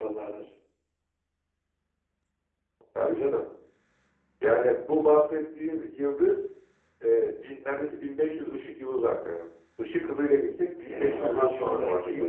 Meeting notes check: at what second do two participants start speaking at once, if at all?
10.8 s

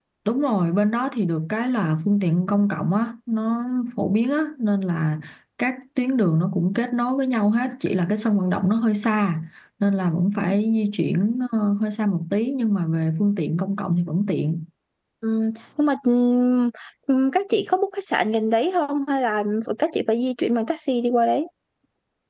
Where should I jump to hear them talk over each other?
none

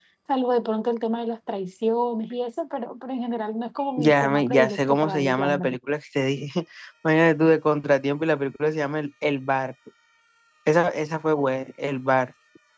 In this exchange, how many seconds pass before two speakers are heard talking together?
4.0 s

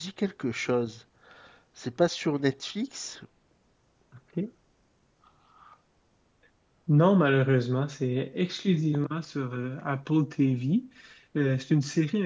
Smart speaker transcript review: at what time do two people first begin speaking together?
none

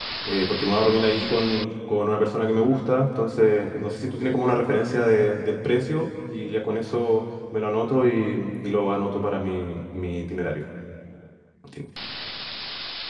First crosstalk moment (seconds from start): none

